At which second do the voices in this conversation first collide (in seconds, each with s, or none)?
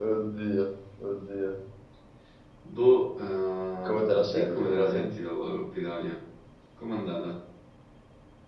3.8 s